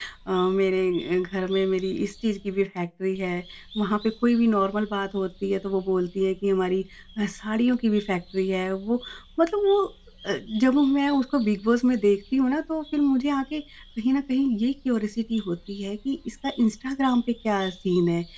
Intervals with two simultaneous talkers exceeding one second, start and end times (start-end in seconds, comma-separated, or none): none